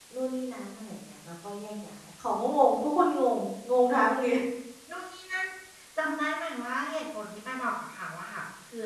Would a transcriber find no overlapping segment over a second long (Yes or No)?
Yes